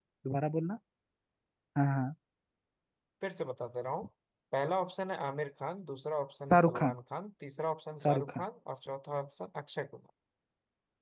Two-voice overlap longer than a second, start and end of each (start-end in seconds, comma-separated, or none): none